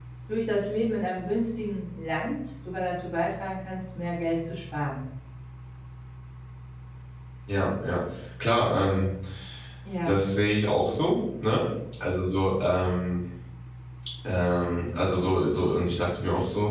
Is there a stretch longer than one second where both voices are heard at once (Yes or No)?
No